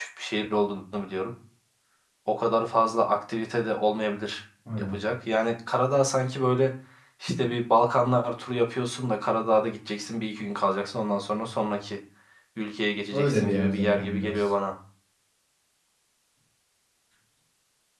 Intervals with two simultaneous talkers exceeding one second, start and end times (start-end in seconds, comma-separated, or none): 13.1-14.5